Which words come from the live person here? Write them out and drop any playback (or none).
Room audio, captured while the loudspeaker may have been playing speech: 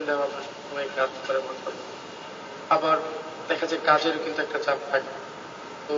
none